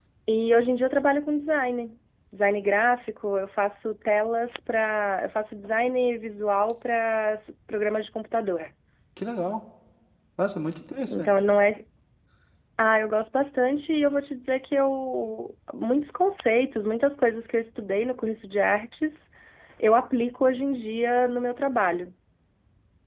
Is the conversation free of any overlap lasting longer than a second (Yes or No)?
Yes